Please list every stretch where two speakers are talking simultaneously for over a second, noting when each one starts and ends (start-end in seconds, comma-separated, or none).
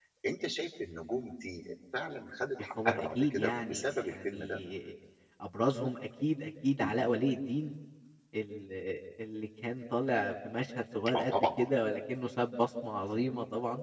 2.8-4.6